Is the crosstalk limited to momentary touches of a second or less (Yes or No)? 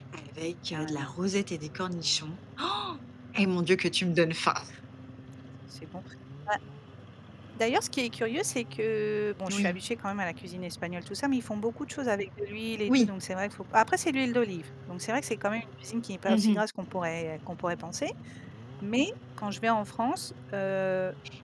Yes